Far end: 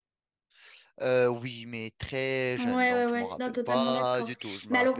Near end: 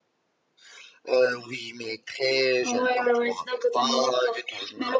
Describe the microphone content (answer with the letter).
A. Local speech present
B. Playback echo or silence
B